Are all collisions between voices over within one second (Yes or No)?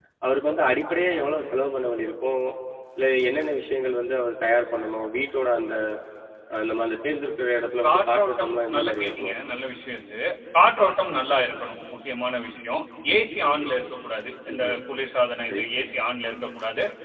No